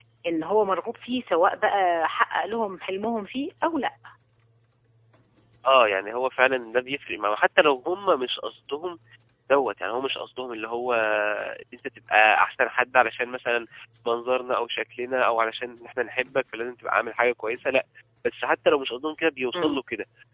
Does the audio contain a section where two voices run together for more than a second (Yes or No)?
No